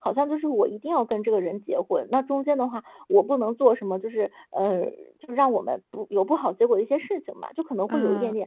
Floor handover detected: No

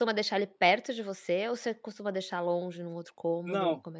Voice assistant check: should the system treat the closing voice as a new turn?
Yes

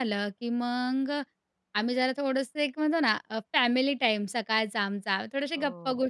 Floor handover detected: No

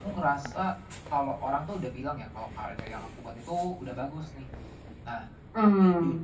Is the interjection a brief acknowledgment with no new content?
Yes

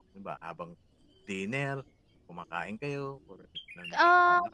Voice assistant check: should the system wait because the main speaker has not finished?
No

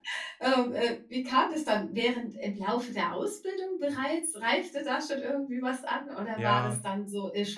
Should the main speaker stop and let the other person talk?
No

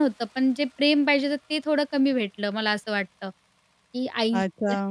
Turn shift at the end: Yes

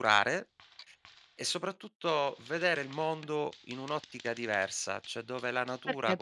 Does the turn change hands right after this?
Yes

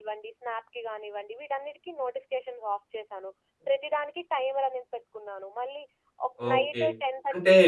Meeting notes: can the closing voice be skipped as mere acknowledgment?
No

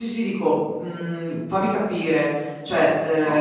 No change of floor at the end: No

